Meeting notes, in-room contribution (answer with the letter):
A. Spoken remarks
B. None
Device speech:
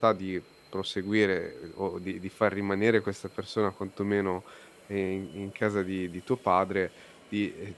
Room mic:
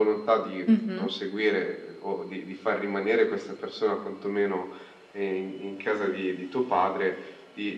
A